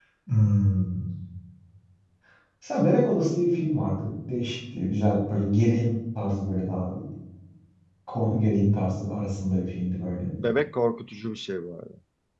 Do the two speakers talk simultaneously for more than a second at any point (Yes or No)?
No